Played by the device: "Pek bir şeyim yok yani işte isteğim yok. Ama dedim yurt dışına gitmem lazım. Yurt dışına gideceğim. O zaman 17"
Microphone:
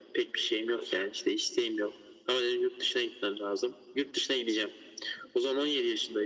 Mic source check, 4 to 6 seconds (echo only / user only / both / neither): echo only